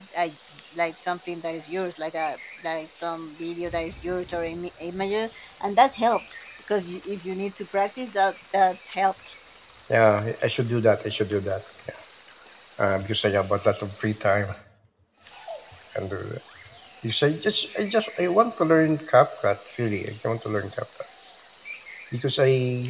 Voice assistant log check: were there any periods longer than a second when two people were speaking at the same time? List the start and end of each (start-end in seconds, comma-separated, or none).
none